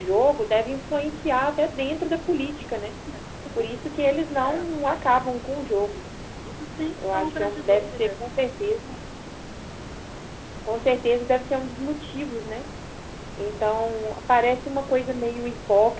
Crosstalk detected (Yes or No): Yes